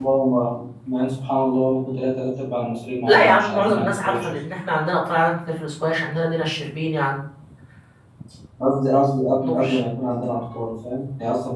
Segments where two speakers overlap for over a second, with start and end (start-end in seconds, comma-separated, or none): 3.1-4.4